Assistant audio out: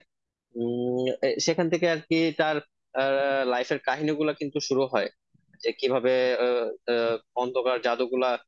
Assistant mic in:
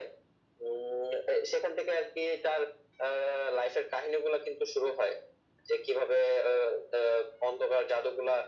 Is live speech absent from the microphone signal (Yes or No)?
Yes